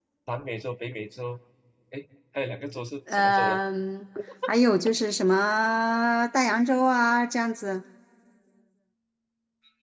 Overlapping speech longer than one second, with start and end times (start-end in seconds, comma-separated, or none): none